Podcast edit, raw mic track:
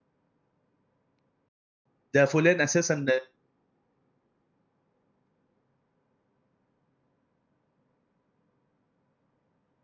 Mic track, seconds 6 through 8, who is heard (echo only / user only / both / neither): neither